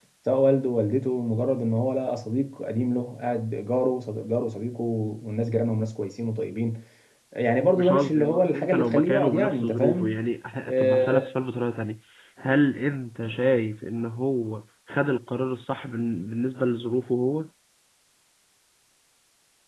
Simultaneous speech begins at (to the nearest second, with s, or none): 8 s